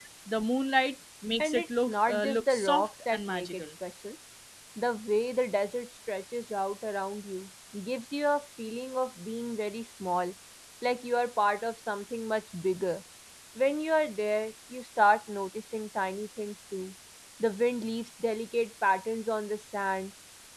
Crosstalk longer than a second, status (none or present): present